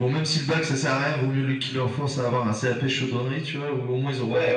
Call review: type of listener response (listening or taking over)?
taking over